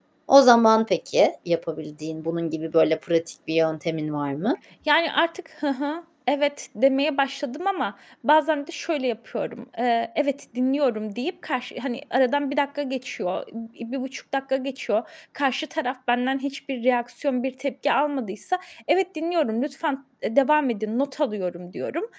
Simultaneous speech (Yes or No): No